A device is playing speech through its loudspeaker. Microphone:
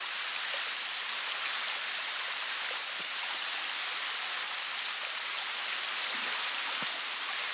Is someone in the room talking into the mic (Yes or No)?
No